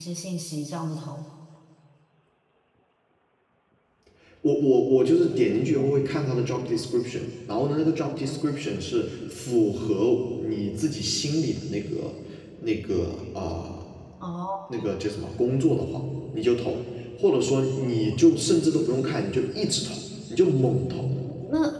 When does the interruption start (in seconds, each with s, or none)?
none